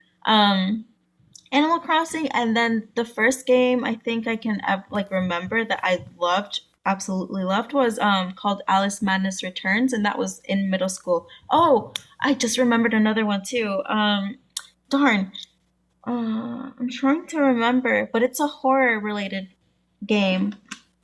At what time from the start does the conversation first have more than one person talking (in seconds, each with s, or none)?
none